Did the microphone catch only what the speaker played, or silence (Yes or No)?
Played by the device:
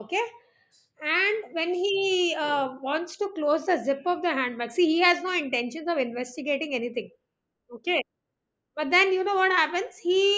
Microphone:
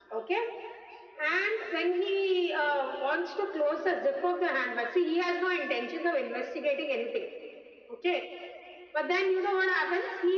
Yes